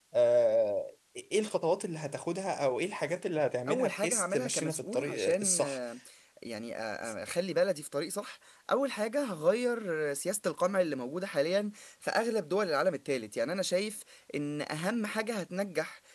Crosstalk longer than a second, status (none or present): present